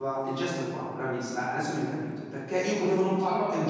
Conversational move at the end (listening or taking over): listening